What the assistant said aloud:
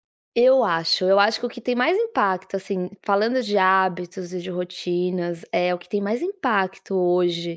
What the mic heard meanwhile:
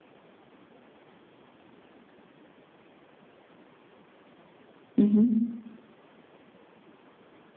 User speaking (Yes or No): Yes